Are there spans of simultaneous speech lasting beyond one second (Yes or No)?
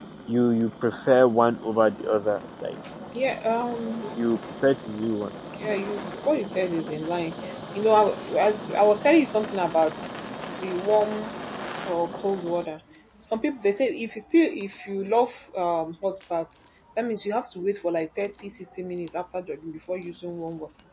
No